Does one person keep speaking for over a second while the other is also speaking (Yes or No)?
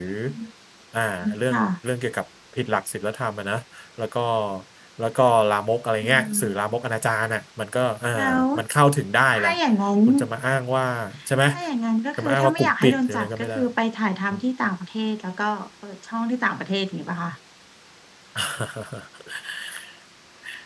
Yes